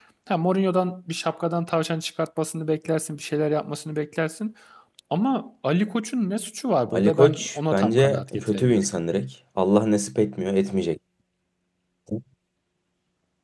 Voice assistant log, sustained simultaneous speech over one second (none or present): present